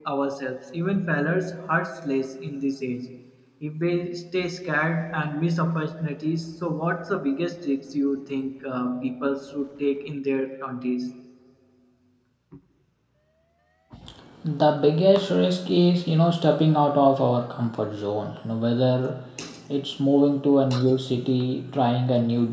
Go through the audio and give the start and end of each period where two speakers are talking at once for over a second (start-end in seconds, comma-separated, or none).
none